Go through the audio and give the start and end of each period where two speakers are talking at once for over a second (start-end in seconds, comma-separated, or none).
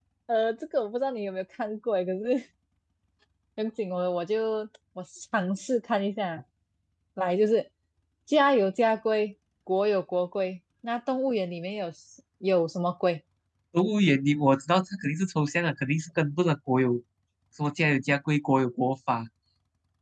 none